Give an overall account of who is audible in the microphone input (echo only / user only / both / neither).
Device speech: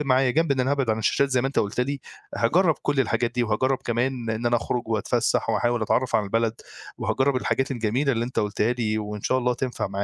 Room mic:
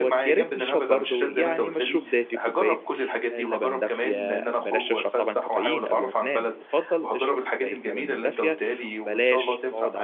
both